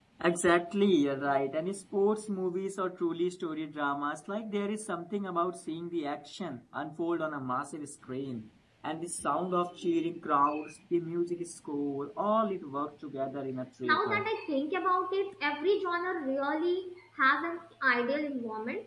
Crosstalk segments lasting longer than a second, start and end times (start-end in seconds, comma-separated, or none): none